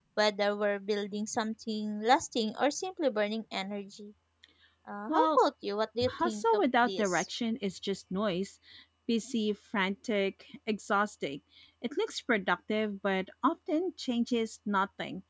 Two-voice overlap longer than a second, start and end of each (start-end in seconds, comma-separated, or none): 6.0-7.3